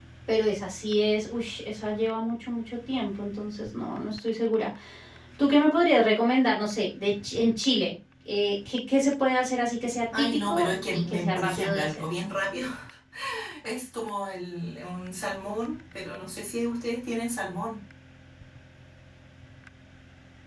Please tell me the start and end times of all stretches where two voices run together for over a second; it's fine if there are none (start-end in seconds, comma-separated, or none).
10.2-12.0